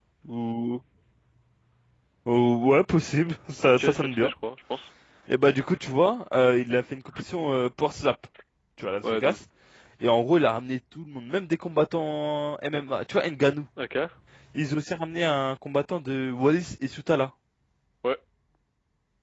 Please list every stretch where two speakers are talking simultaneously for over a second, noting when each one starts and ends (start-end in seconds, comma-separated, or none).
none